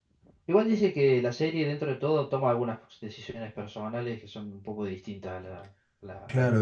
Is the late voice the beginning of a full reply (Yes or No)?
Yes